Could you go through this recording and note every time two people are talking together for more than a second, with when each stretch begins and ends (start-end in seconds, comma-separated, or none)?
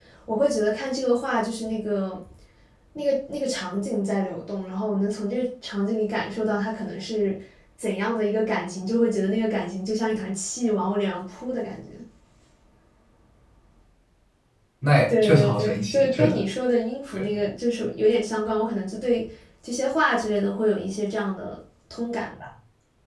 15.1-16.3